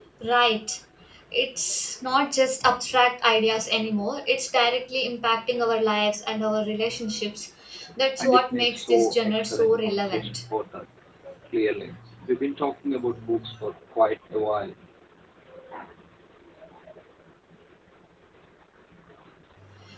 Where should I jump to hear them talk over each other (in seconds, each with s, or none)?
8.2 s